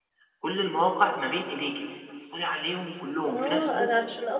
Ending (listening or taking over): taking over